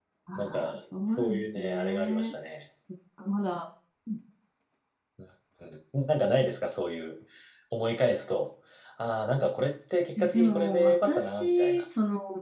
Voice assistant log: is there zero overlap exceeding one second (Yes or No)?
No